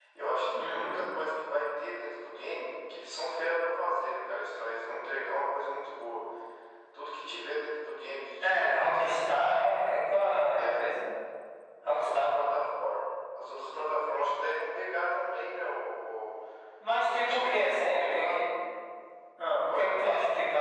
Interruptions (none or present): present